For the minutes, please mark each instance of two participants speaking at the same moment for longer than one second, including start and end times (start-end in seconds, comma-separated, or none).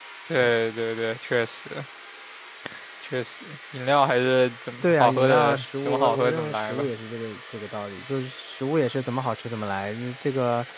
4.8-6.9